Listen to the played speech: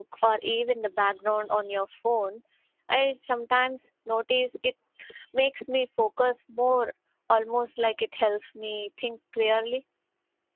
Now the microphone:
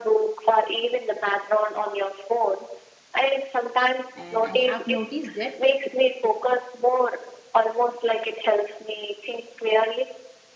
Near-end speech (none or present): present